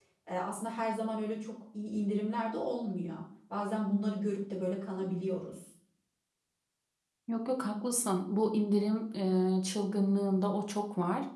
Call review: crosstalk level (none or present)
none